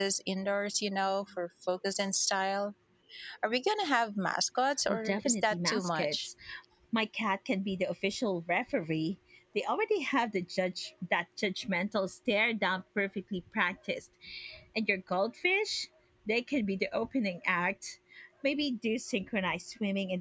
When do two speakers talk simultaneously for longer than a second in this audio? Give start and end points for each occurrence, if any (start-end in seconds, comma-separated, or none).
4.9-6.3